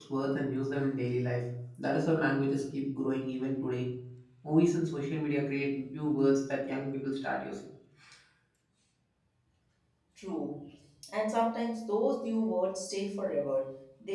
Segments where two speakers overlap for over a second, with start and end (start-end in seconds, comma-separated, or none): none